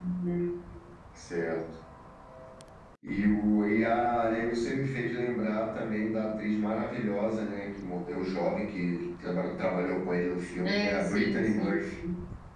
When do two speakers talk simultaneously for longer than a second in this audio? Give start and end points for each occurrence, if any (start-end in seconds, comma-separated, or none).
10.6-11.9